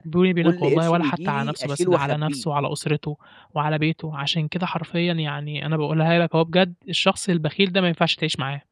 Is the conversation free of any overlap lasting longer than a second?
No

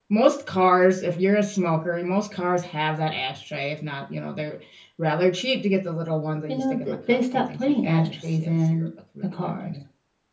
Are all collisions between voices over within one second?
No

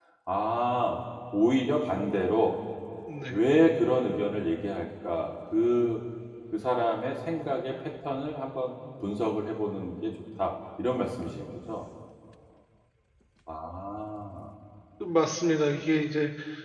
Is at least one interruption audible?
No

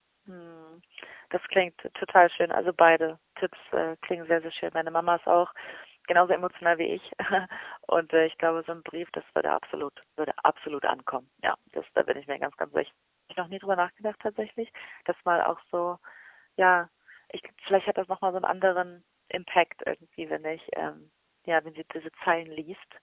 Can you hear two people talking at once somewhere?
No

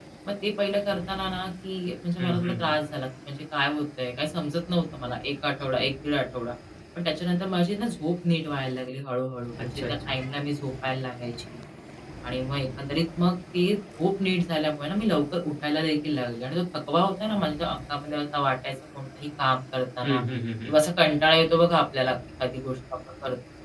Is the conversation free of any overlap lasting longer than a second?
Yes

